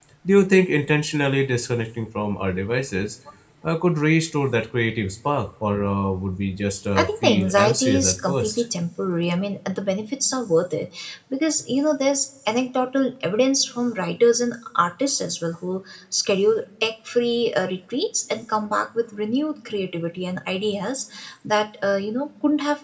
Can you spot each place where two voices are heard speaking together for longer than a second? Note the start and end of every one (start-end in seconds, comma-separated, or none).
7.0-8.6